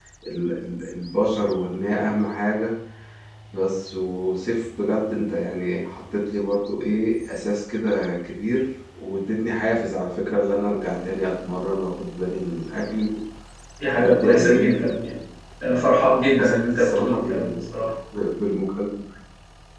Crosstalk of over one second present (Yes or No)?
Yes